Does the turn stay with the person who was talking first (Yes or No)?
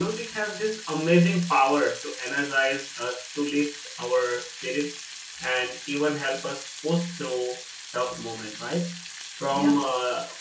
Yes